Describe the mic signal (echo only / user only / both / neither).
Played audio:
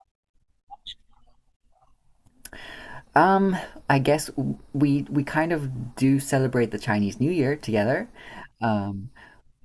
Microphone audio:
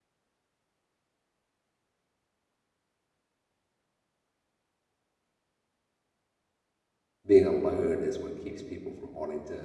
user only